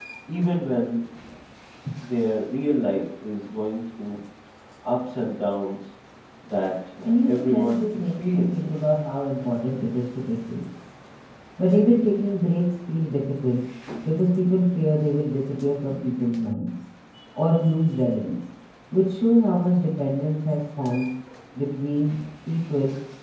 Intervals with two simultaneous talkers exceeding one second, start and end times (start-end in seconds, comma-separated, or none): 7.3-8.9